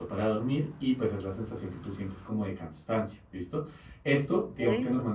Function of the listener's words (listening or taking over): listening